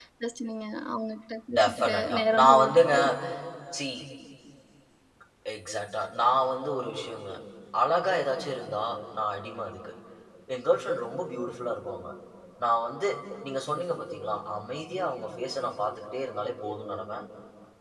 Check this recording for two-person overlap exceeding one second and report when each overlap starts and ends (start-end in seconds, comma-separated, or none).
1.6-2.8